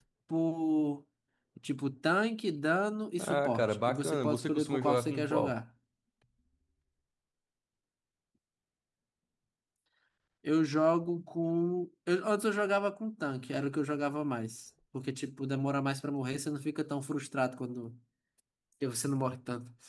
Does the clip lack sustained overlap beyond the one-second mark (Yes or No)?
No